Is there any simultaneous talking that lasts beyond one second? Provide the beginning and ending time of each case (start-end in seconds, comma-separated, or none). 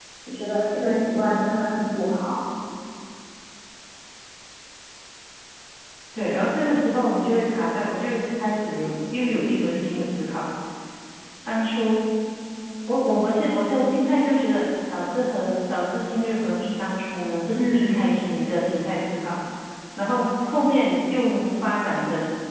none